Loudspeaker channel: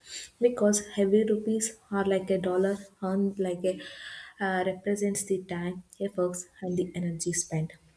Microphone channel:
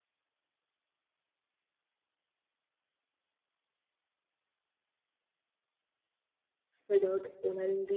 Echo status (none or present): none